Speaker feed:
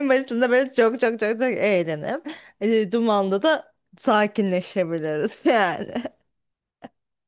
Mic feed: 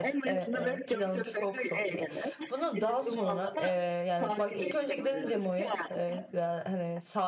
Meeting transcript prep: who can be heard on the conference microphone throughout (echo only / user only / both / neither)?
both